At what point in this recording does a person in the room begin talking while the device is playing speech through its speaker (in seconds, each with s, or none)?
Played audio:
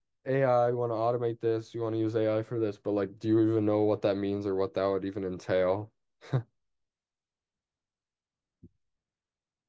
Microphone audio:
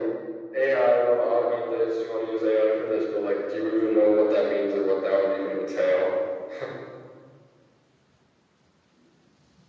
none